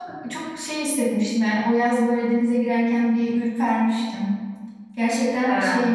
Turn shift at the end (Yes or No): No